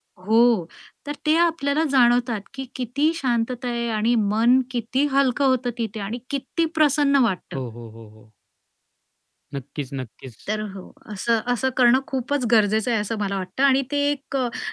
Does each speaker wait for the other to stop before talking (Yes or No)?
Yes